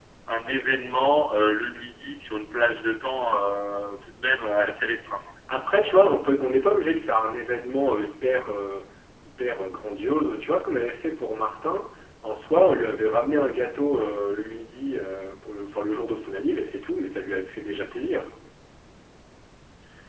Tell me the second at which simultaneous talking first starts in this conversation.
none

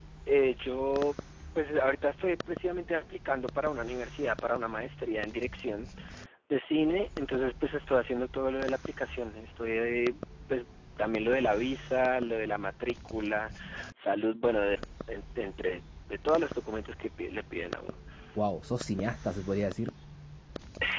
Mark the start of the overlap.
none

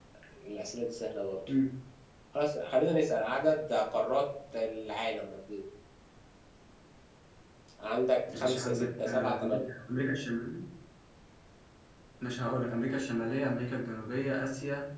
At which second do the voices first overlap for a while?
8.3 s

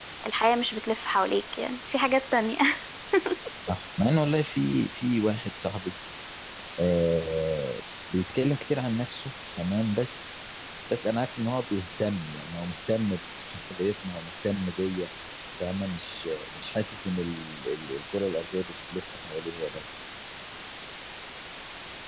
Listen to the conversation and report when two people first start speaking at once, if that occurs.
none

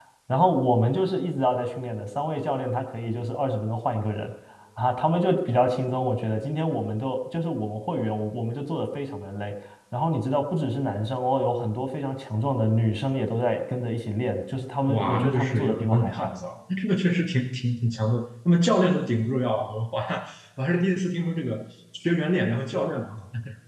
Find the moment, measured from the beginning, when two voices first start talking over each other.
14.9 s

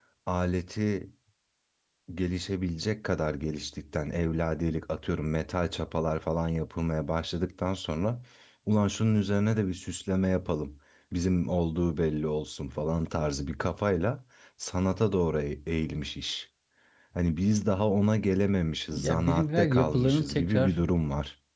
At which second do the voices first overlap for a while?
18.9 s

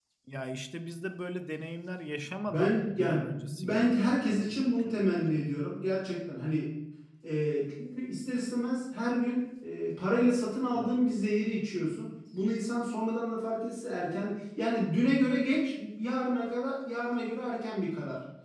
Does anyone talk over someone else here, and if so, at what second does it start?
2.5 s

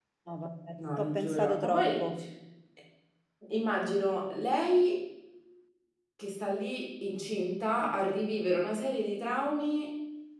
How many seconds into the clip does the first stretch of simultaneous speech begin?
0.8 s

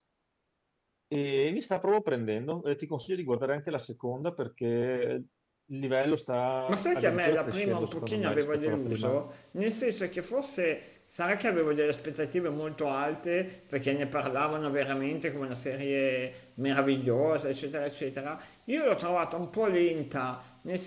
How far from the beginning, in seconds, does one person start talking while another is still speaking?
6.7 s

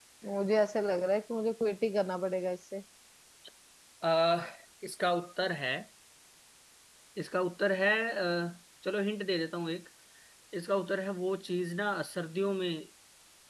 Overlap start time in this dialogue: none

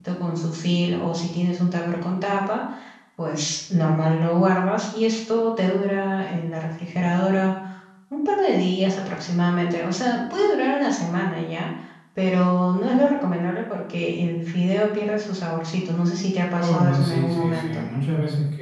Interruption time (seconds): 16.6 s

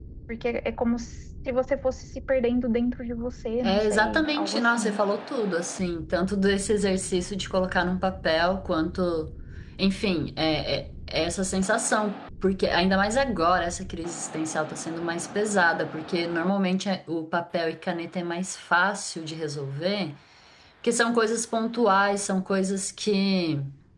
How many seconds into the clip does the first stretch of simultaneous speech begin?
3.6 s

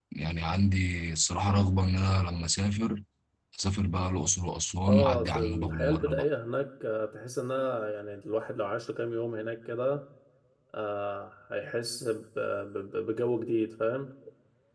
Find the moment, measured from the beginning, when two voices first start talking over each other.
4.9 s

